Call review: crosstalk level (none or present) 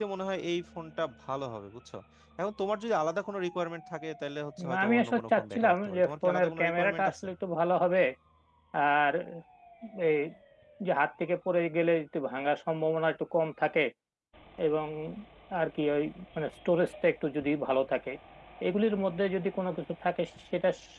present